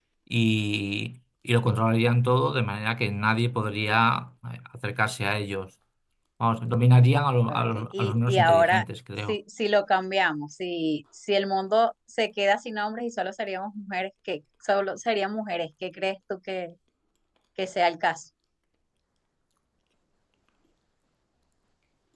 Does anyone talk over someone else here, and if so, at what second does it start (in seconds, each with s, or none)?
7.5 s